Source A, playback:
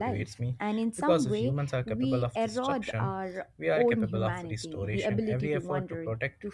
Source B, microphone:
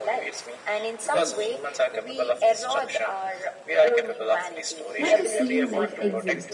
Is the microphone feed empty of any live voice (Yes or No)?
No